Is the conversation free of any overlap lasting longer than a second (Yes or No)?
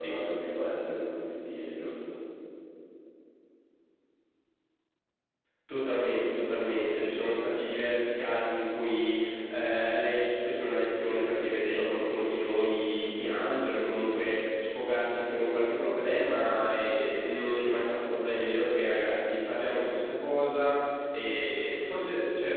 Yes